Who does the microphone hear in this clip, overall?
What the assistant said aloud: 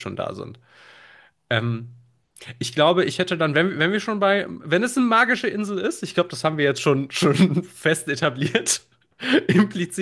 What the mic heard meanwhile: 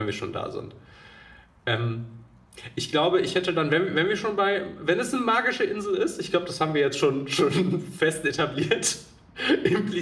echo only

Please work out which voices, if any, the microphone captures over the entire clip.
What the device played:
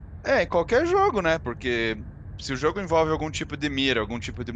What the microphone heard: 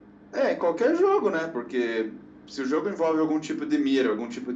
echo only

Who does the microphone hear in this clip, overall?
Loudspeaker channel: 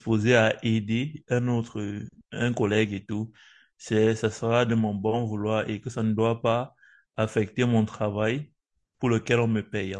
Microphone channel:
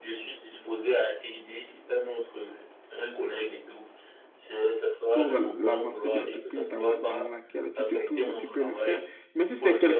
both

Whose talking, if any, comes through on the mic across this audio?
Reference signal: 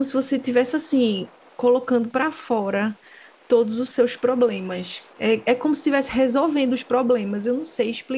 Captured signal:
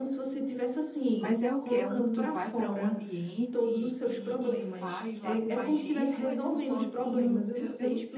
both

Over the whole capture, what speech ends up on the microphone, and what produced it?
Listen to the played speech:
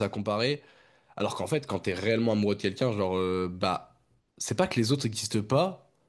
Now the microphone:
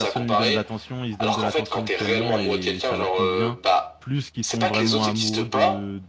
both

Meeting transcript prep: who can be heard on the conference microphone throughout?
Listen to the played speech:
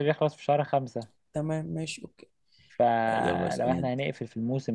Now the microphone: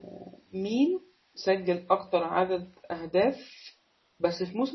user only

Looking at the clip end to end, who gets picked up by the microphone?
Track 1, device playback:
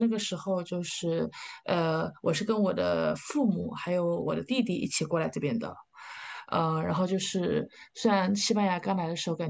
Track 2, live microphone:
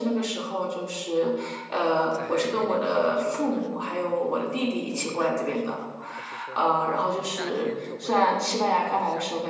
both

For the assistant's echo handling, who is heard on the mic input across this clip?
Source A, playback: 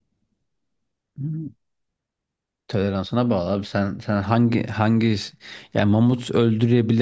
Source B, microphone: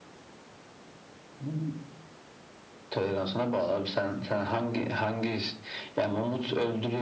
echo only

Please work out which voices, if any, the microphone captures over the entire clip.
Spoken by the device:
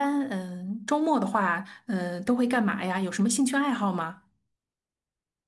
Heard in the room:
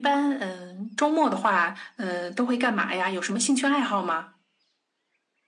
echo only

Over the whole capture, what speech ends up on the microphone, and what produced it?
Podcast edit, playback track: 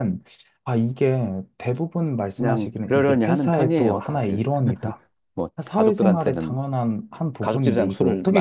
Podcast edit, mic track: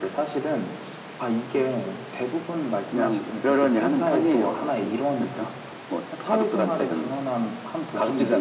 echo only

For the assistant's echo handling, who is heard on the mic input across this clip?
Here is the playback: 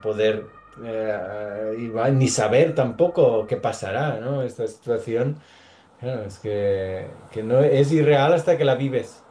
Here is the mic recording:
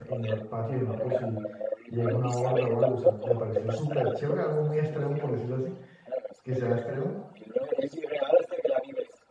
both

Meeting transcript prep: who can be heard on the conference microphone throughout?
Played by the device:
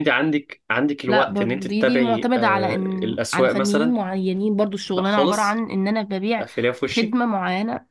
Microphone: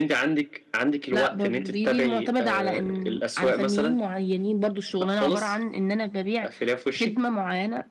echo only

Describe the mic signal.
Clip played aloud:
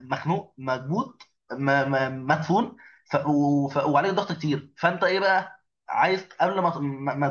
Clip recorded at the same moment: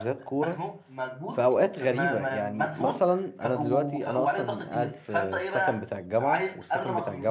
both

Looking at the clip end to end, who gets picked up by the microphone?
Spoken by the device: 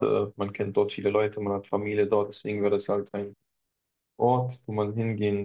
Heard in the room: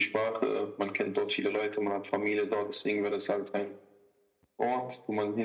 echo only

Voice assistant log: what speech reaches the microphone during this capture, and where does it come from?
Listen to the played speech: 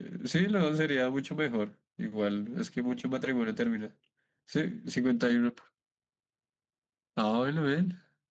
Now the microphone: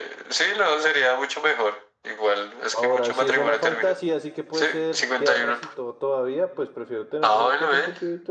both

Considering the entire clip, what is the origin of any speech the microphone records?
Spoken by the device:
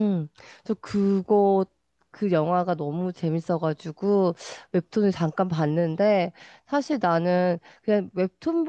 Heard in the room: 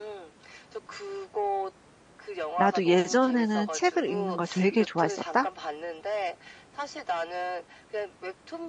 both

